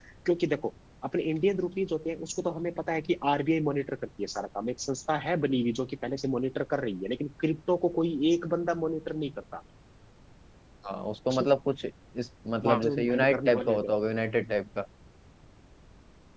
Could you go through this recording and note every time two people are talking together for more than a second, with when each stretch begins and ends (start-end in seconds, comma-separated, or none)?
12.6-13.9